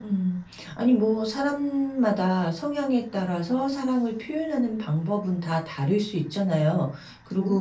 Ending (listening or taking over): listening